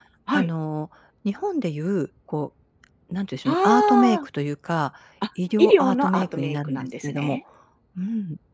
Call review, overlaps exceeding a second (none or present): present